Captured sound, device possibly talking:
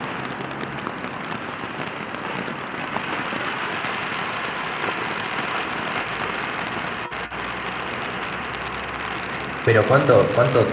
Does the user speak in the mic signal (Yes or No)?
Yes